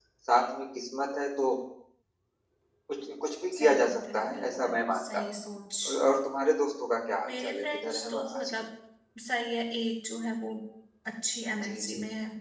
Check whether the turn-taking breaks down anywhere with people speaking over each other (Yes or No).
Yes